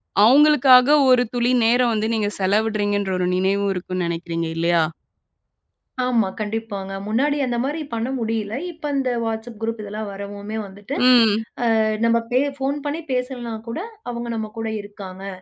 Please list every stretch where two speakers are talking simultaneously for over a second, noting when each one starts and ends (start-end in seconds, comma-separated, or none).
none